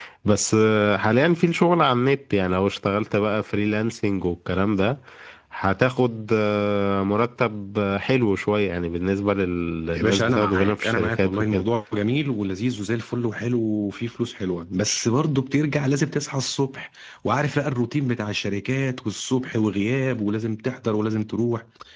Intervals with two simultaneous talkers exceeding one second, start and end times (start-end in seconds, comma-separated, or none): 9.9-11.6